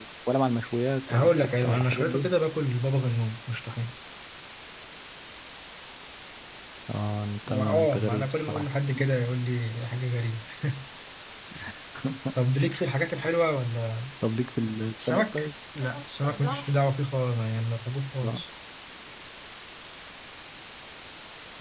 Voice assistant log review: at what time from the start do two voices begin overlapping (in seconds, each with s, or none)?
1.1 s